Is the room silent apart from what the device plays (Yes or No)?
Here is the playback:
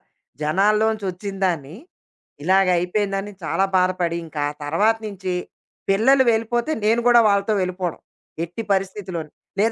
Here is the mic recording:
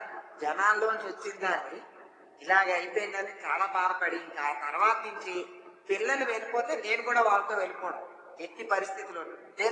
Yes